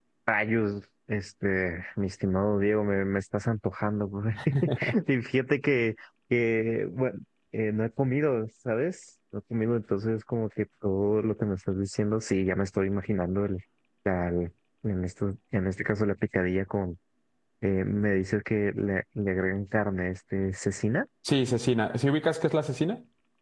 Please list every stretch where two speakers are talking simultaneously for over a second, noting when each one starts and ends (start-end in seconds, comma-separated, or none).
none